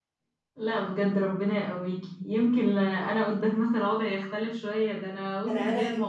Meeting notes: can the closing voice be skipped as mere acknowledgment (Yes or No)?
No